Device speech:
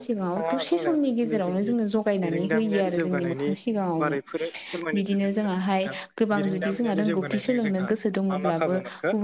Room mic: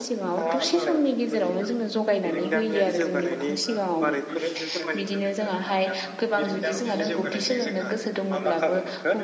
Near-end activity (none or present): present